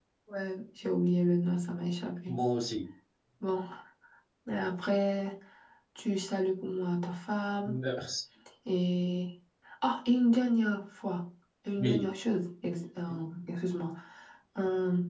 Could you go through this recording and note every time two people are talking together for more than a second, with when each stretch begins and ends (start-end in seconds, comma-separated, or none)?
none